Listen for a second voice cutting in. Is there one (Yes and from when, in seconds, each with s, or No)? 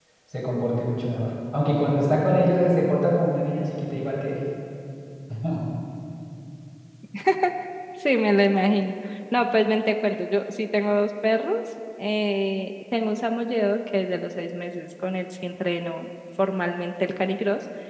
No